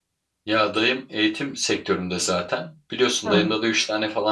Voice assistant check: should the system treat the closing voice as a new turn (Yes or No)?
No